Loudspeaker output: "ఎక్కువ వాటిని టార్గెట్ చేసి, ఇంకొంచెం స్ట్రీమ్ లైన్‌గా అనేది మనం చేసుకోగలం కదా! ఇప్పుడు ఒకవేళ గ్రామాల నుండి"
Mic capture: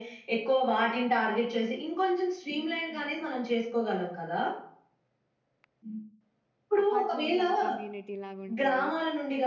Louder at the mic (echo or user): echo